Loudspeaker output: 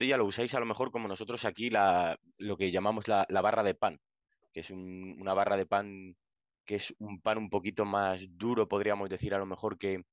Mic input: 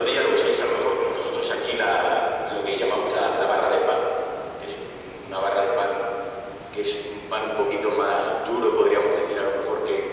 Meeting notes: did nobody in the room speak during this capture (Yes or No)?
Yes